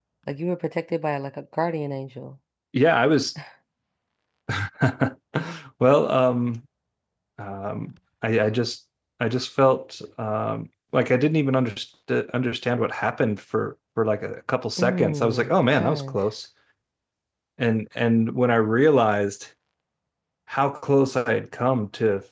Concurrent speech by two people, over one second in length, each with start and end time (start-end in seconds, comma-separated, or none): 14.8-16.2